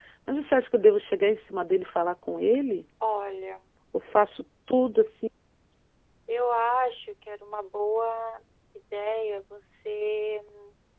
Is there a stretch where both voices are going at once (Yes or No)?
No